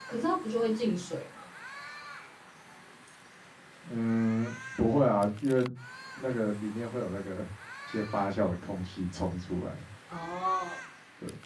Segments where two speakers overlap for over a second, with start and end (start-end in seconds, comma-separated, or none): none